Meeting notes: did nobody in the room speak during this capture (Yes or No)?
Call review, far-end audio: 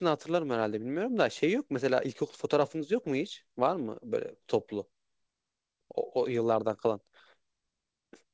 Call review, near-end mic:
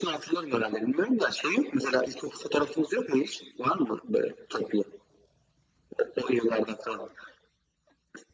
Yes